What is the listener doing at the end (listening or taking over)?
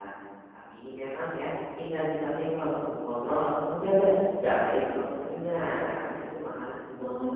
listening